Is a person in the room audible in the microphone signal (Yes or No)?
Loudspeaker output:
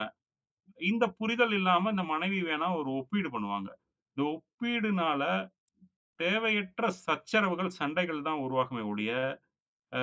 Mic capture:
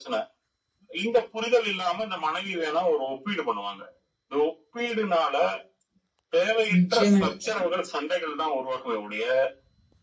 Yes